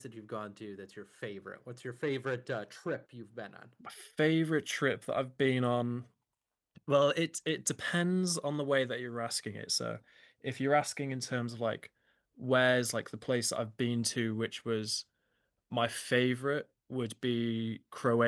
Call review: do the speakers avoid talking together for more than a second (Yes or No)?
Yes